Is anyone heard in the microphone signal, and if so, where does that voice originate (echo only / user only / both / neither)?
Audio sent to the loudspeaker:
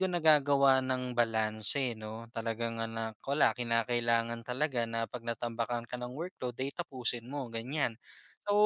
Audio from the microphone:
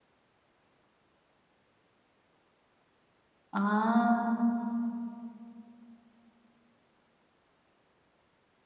user only